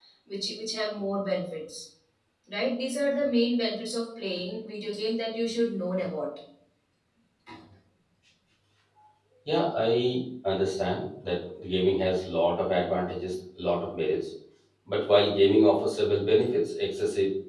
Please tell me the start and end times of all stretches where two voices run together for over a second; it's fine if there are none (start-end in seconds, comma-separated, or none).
none